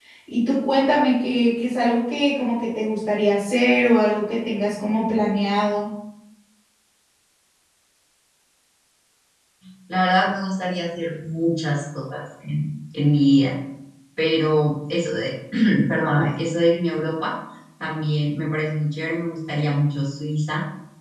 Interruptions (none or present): none